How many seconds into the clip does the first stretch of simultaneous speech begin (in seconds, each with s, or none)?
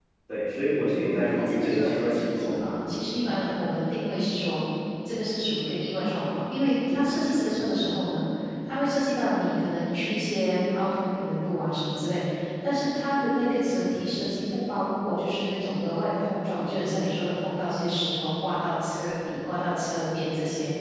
1.2 s